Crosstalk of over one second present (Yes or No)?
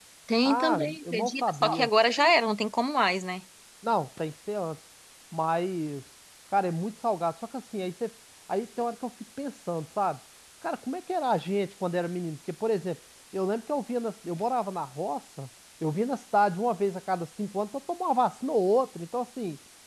Yes